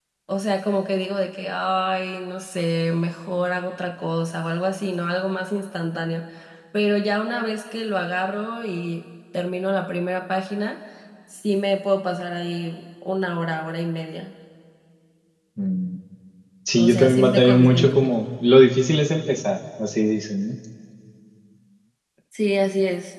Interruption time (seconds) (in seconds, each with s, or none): 16.8 s